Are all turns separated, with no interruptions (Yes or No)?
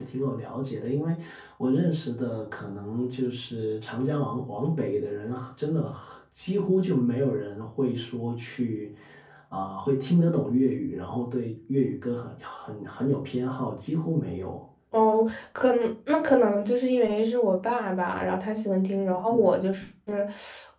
Yes